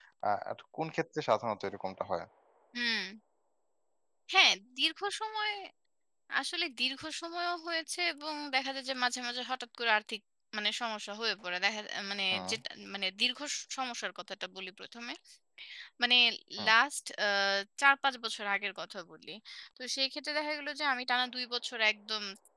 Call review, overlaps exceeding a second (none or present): none